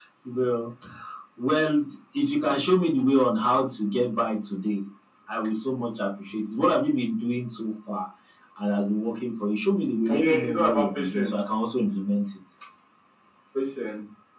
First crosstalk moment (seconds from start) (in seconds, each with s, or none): 10.1 s